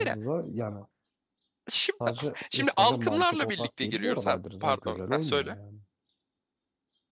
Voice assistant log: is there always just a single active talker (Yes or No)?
No